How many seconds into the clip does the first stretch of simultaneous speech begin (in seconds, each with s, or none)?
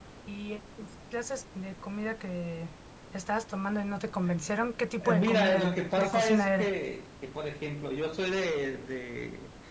5.0 s